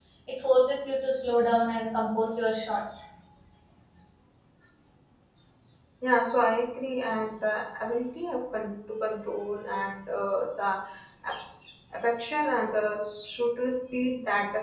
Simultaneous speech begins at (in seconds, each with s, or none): none